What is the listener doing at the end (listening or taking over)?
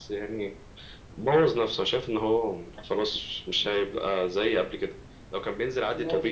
taking over